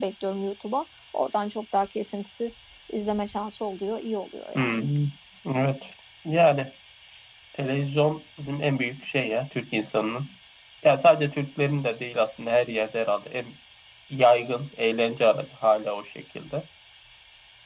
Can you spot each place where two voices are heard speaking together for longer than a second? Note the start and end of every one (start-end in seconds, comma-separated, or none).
none